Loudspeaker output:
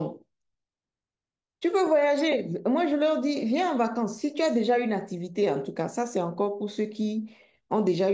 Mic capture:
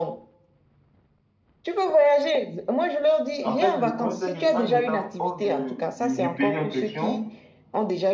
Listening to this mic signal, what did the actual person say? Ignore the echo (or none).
en fait, le problème, c'est qu'en étant hors de- du, du pays en question,